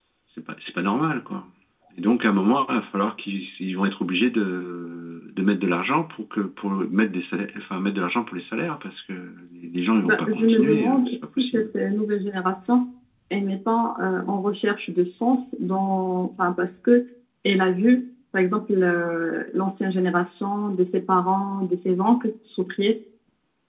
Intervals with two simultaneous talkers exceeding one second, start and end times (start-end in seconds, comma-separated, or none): 10.0-11.7